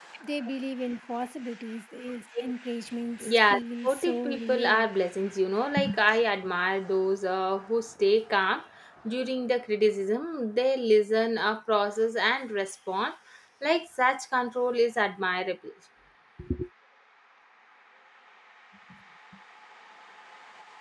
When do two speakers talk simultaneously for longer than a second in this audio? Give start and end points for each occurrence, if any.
3.2-4.9

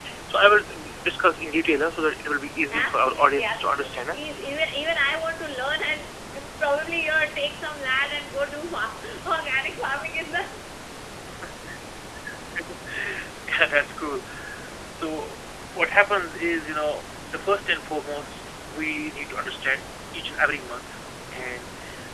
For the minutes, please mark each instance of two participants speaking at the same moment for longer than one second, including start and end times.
2.7-4.2

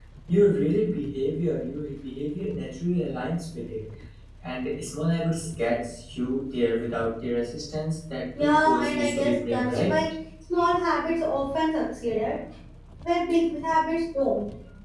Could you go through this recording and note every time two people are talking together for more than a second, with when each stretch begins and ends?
8.4-9.9

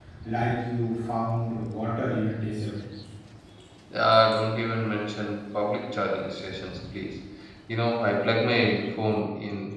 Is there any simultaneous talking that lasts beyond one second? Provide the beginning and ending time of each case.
none

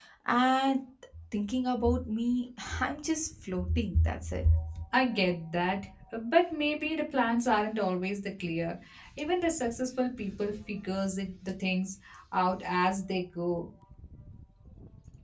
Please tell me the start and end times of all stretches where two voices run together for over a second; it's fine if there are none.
none

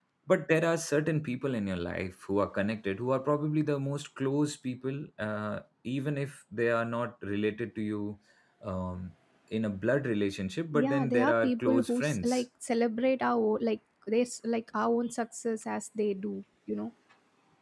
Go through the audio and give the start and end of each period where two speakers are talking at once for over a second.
10.7-12.4

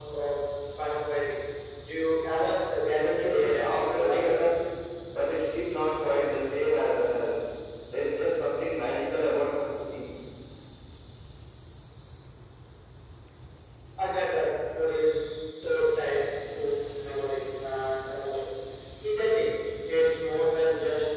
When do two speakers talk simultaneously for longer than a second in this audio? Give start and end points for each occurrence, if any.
2.9-4.4

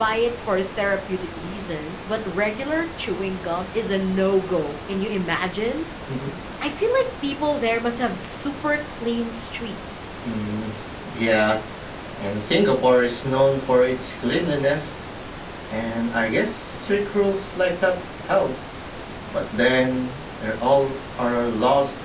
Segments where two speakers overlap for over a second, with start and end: none

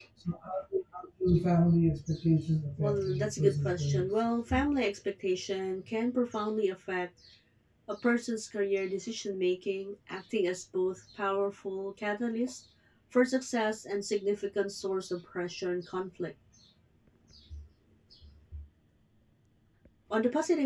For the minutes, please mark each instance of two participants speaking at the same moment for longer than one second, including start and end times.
2.8-4.6

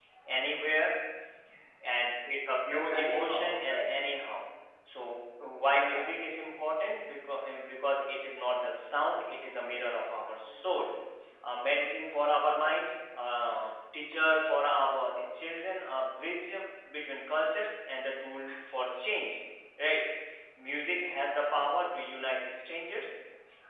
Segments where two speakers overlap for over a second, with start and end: 2.7-3.9

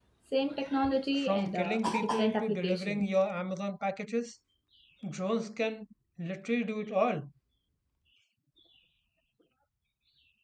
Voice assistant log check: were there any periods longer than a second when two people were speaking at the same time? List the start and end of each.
1.1-3.1

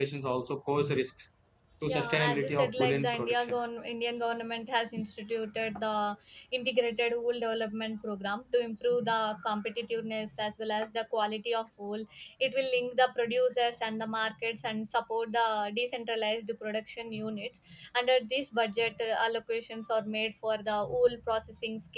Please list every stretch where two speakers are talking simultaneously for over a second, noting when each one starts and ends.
1.9-3.6

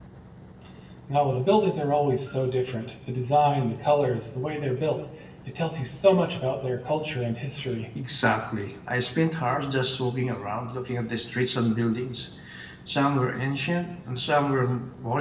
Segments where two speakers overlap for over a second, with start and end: none

